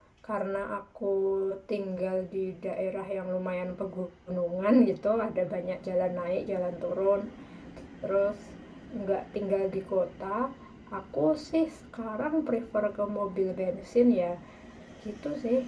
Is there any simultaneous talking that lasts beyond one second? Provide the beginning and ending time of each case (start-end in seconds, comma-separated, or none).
none